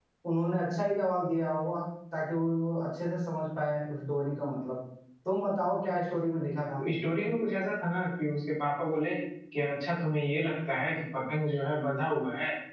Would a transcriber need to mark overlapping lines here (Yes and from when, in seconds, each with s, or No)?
No